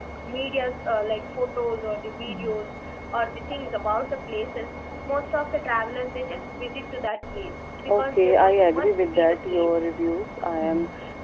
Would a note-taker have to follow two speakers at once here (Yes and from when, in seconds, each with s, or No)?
Yes, from 7.9 s